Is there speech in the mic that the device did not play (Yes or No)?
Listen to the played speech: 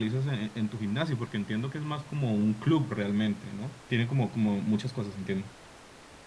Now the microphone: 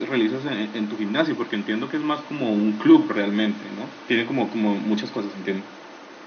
No